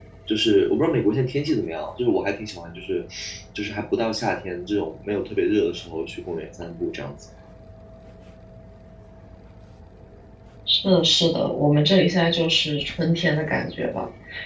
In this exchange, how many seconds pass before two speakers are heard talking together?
none

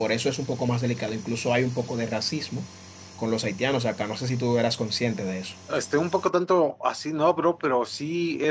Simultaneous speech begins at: none

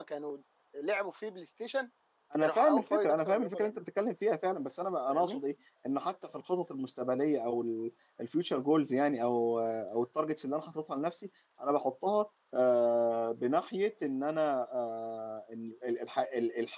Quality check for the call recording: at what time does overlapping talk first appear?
2.4 s

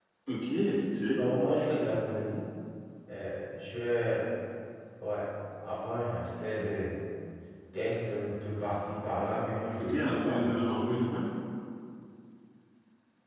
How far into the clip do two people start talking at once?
9.8 s

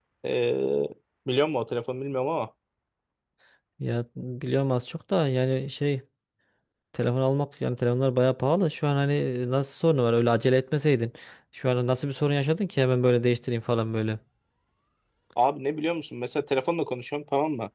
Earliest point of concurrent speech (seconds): none

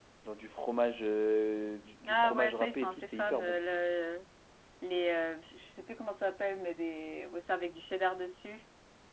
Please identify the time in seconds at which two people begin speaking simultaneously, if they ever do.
2.0 s

